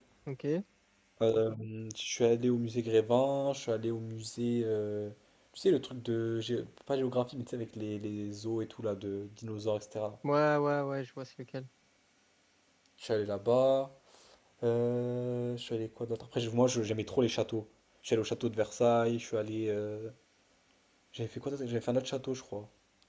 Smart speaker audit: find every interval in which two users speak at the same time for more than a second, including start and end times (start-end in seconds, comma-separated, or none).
none